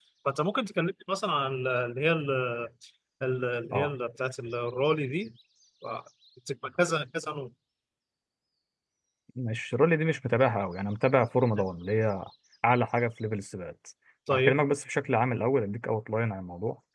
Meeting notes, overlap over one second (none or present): none